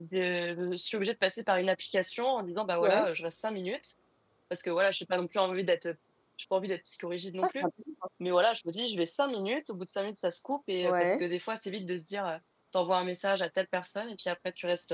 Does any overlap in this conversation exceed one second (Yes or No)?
No